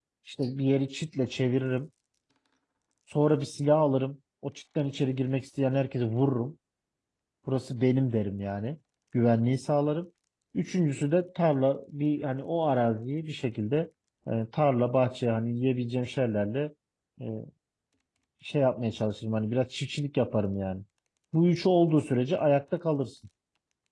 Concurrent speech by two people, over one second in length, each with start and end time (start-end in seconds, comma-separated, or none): none